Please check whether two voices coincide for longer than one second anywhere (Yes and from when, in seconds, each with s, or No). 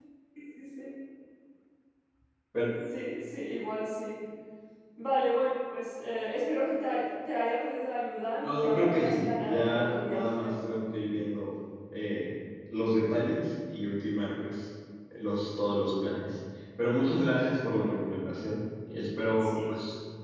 Yes, from 8.4 s